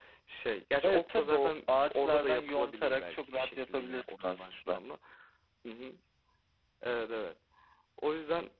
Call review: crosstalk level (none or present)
present